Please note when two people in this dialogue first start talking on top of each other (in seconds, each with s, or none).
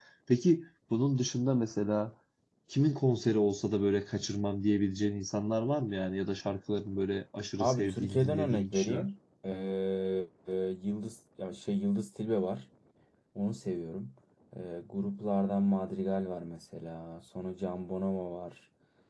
7.6 s